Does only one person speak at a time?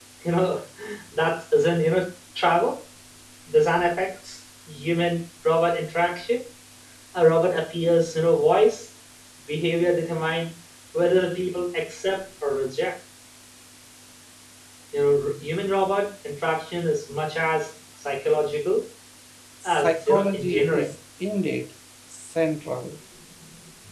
No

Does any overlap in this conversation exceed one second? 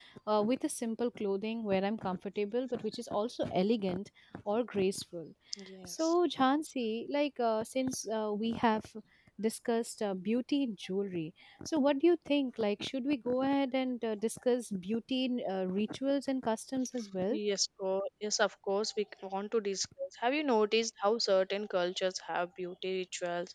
No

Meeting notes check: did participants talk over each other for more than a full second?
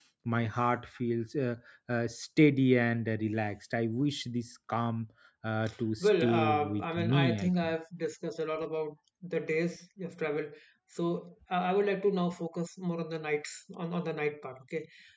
Yes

